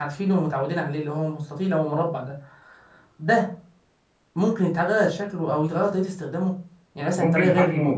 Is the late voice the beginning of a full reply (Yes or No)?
Yes